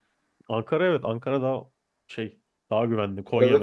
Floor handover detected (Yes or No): No